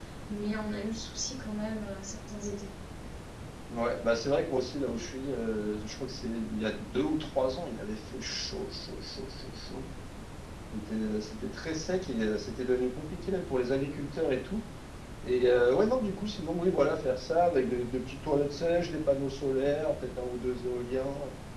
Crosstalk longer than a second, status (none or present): none